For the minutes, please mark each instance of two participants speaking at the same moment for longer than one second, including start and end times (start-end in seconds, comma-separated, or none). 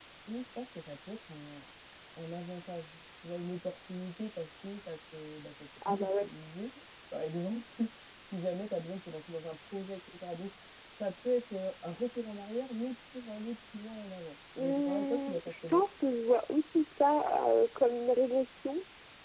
14.6-15.8